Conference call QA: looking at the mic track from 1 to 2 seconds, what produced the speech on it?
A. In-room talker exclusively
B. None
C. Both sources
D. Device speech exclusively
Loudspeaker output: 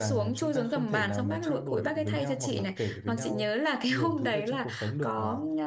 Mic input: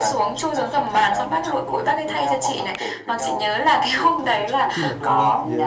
D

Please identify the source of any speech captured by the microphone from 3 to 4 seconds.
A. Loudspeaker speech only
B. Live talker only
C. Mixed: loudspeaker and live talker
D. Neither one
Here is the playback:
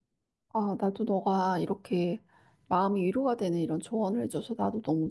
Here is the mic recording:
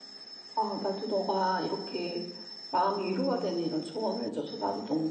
C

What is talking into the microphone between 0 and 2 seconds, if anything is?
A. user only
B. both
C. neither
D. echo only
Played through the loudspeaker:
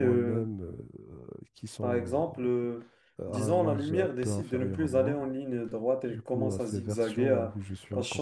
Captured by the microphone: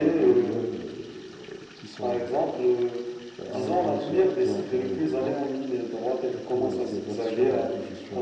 D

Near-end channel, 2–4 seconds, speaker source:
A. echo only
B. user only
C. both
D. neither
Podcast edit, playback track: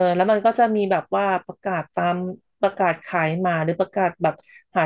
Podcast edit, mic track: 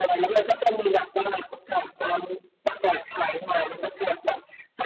A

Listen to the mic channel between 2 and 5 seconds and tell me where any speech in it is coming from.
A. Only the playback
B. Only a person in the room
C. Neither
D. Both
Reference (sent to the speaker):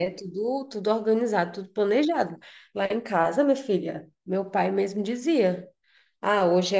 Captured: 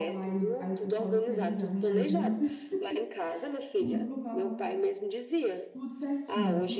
D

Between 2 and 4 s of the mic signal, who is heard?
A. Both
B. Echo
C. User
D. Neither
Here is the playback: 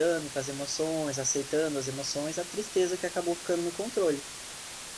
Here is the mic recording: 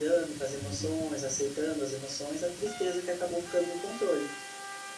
B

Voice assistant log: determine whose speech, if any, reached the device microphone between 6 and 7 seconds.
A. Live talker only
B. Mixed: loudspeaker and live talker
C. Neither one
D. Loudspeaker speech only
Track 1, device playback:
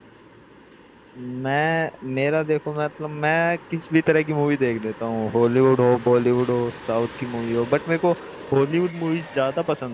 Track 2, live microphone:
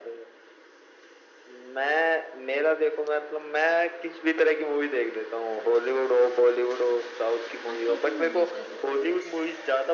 D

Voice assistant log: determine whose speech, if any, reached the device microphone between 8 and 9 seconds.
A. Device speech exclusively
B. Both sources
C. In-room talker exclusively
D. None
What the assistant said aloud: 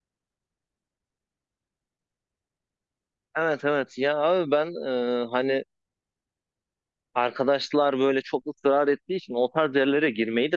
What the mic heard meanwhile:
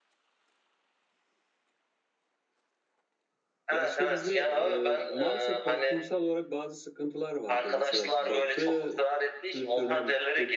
B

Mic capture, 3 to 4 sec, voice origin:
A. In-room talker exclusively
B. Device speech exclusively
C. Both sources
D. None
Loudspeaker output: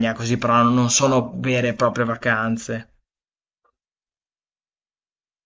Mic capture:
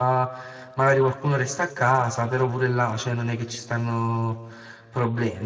A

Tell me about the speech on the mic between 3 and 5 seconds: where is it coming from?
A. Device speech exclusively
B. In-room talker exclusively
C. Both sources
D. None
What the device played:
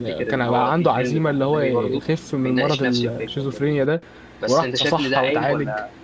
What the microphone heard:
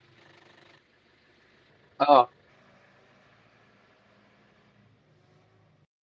D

